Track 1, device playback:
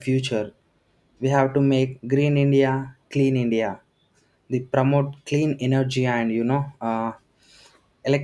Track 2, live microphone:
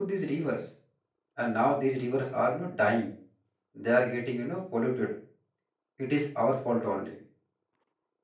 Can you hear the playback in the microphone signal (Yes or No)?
No